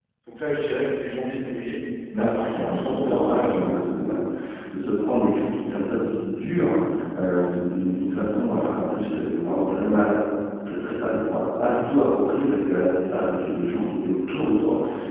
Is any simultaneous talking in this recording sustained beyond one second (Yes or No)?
Yes